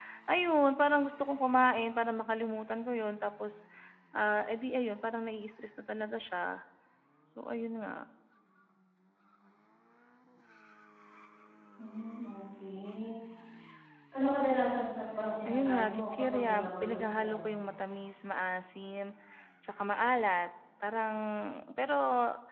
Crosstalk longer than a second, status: present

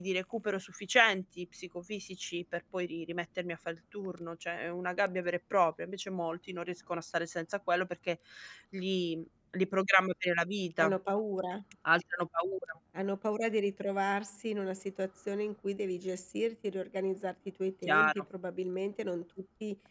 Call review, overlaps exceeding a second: none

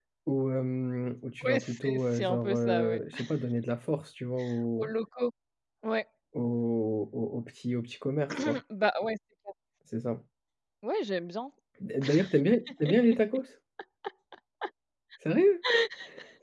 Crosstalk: present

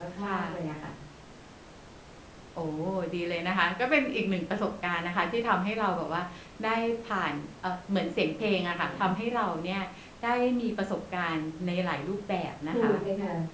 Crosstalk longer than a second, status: none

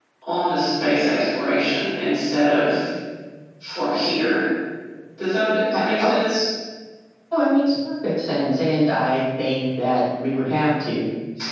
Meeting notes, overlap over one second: none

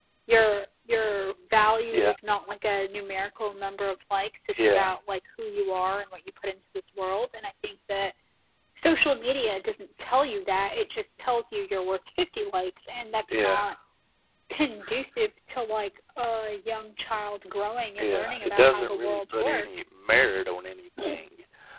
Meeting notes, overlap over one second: present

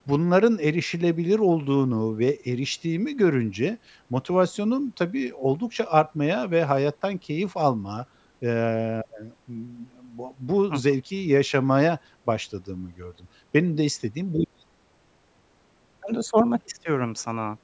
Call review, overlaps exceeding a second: none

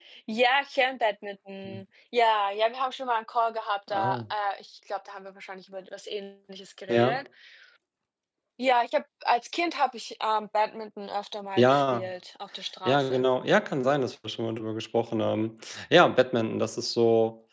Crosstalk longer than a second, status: none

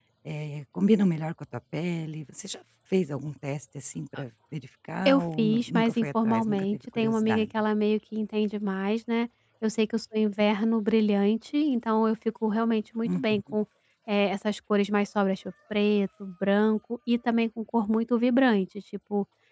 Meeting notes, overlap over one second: present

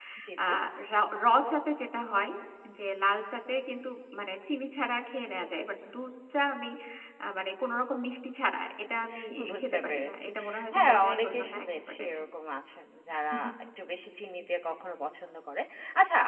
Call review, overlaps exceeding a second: present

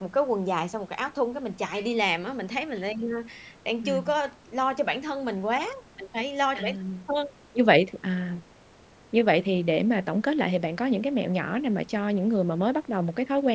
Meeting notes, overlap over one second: none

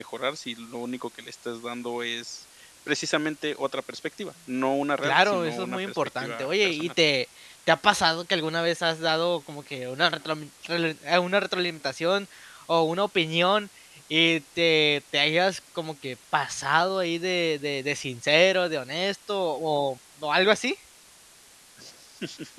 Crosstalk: present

